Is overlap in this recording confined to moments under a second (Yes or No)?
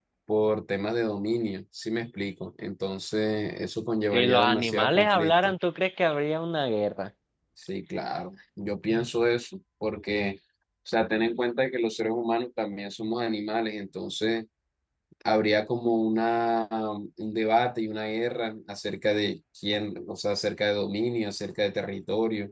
No